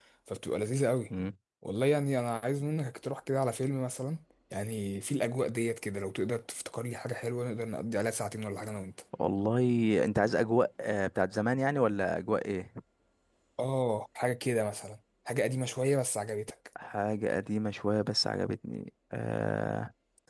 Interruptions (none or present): none